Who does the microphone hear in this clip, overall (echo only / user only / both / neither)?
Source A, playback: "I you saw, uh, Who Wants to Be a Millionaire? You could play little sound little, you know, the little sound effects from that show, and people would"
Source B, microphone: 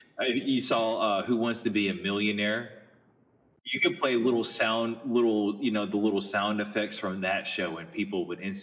echo only